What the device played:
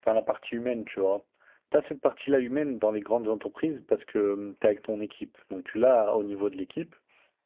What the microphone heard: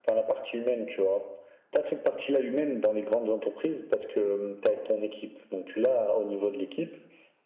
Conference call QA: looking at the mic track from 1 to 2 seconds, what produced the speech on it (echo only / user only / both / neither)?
echo only